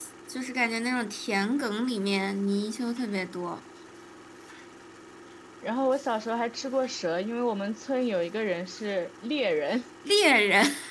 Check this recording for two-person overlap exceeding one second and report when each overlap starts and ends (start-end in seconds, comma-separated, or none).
none